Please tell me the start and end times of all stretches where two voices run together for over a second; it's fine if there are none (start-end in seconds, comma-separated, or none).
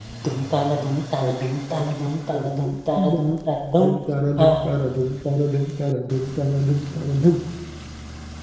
none